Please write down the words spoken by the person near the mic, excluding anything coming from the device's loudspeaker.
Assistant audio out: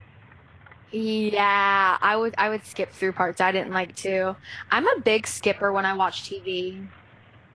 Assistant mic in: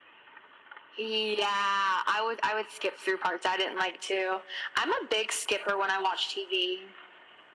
none

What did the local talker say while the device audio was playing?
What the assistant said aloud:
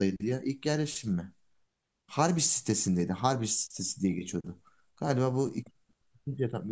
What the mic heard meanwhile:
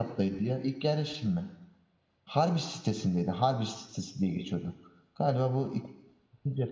none

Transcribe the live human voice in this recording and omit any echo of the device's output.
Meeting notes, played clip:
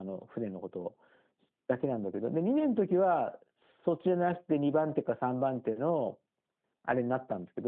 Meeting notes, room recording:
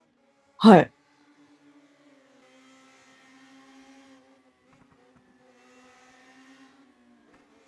はい。

